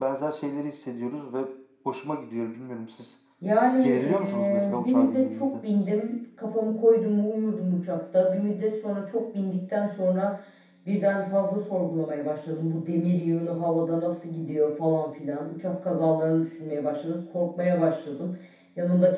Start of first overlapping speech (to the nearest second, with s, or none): 4 s